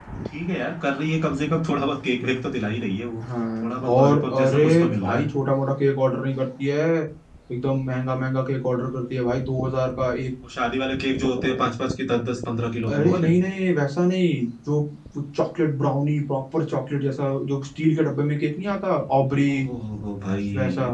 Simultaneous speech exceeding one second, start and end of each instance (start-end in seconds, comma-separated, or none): 3.6-5.2